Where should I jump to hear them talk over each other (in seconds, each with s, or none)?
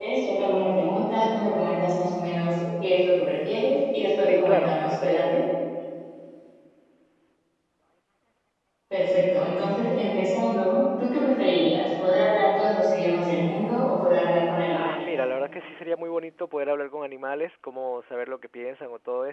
4.2 s